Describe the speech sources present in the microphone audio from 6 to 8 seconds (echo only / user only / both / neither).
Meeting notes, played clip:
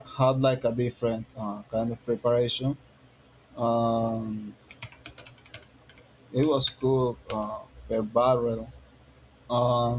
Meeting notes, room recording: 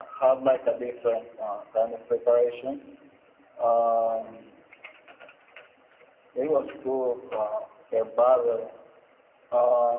echo only